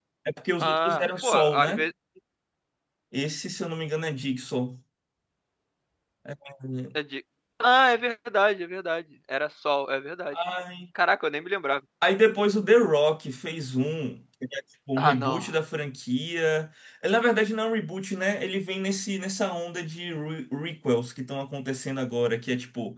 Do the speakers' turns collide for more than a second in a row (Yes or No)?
Yes